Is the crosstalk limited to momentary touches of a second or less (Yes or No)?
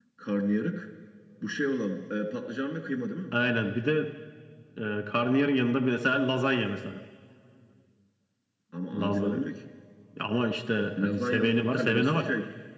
No